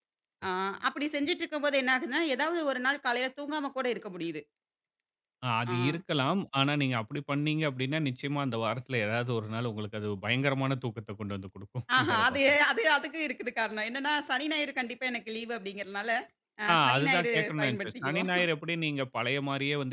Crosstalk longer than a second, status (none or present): present